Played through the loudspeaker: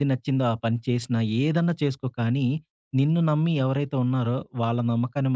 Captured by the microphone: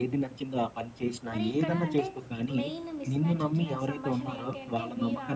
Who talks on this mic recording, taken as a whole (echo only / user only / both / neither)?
both